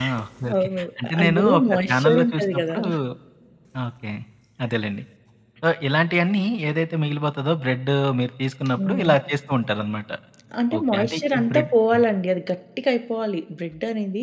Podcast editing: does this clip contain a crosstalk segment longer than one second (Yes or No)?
Yes